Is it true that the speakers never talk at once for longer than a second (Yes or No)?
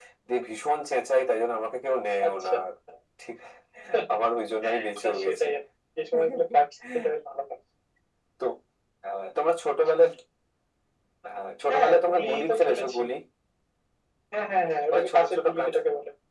No